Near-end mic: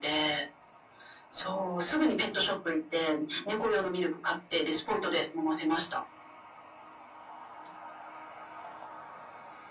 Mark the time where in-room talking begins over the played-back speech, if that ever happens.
none

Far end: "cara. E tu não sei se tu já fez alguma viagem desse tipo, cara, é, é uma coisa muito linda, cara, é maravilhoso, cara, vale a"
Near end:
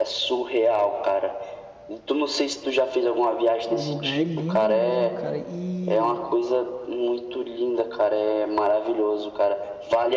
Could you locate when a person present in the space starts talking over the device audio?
4 s

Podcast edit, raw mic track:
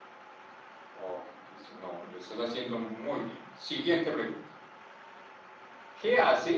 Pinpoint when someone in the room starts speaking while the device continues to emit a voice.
none

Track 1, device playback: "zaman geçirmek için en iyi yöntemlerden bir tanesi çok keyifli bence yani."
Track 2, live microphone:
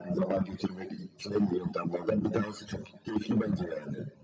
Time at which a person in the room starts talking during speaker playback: none

